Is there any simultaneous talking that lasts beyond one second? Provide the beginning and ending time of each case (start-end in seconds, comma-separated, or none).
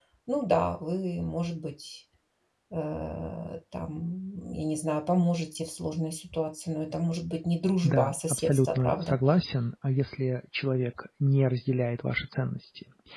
7.8-9.2